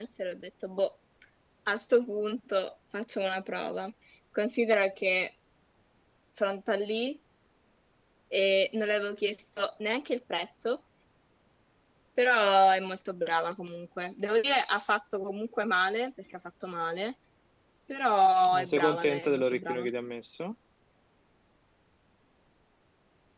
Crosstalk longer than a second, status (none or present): present